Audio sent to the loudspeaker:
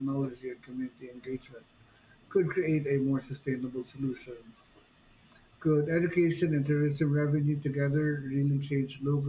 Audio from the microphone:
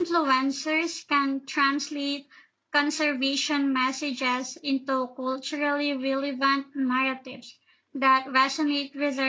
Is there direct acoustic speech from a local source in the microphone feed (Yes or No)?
Yes